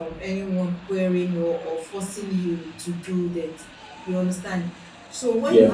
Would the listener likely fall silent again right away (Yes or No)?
Yes